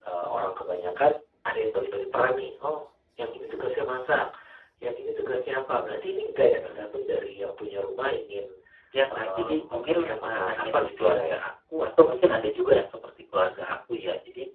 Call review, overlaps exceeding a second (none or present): present